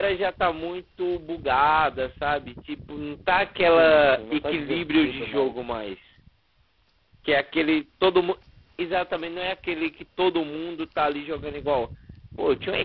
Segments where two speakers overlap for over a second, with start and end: 3.7-5.5

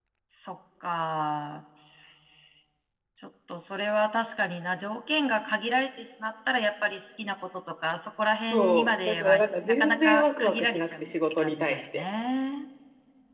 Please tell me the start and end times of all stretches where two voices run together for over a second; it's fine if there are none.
8.5-12.0

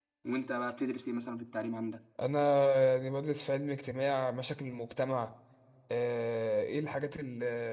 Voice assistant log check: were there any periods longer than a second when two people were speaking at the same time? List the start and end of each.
none

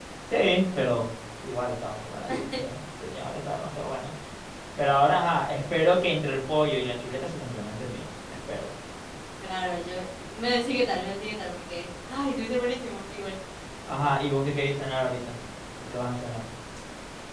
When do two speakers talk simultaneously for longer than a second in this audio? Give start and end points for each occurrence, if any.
none

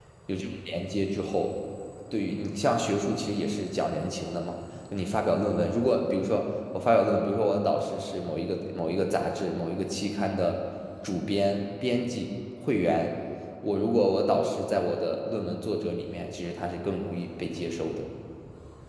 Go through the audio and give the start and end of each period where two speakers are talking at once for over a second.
none

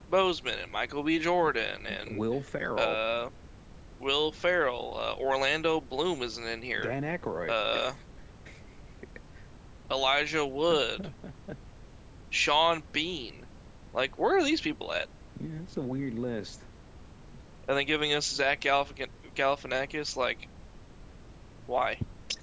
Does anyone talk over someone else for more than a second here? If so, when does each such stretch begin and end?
none

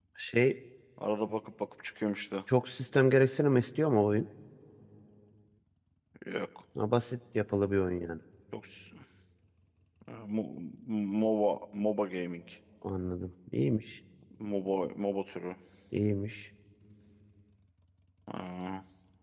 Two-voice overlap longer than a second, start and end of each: none

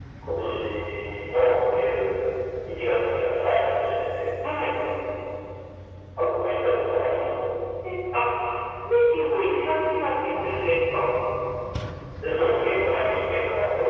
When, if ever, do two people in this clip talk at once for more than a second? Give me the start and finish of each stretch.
none

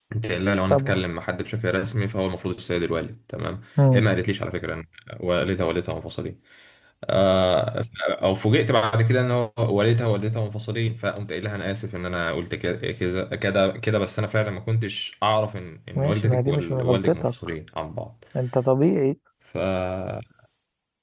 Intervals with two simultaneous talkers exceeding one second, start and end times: 16.0-17.3

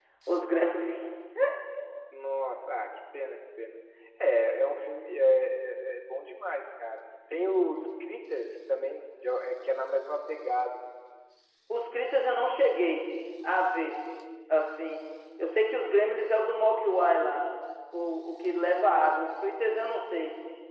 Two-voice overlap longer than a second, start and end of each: none

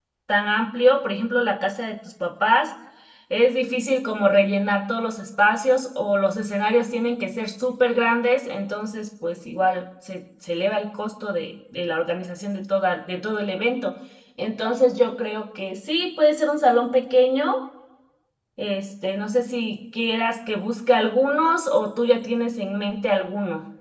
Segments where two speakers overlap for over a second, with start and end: none

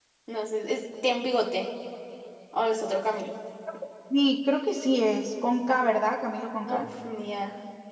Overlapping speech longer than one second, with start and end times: none

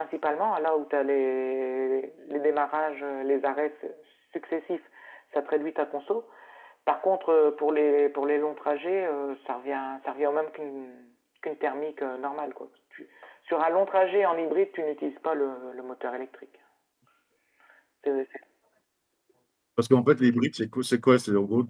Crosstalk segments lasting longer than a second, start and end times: none

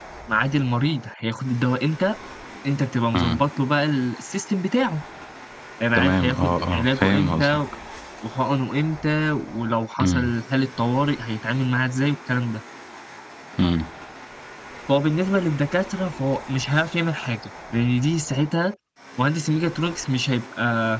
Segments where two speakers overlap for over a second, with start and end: 6.0-7.6

